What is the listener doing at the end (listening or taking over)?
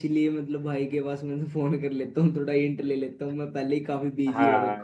taking over